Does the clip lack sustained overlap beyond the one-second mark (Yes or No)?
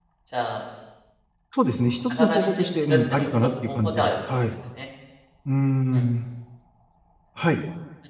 No